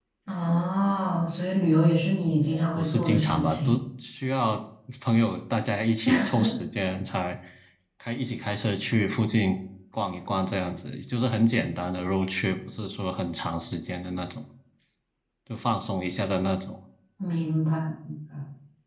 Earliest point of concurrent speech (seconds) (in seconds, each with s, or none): 2.5 s